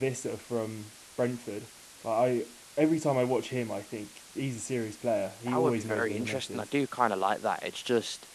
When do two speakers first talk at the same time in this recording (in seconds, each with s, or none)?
5.5 s